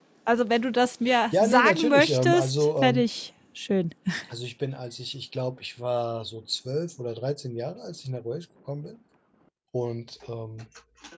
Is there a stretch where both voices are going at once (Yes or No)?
Yes